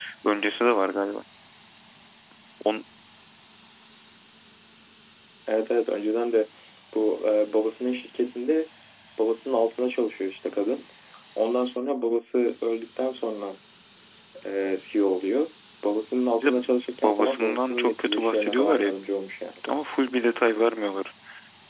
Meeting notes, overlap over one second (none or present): present